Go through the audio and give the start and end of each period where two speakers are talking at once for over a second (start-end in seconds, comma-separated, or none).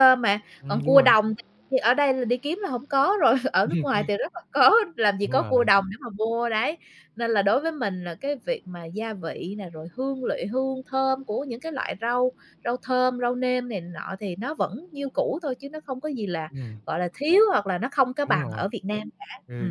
none